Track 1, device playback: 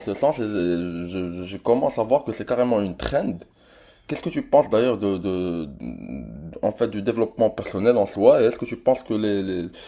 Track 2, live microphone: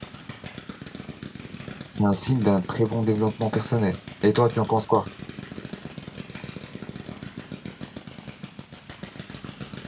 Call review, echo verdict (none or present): none